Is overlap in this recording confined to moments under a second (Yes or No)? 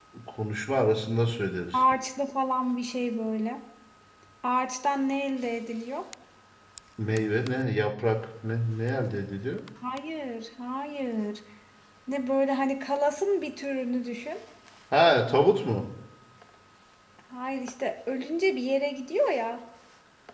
Yes